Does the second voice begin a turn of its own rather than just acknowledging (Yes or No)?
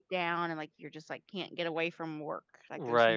Yes